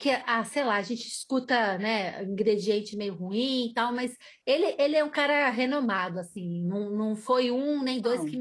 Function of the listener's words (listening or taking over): listening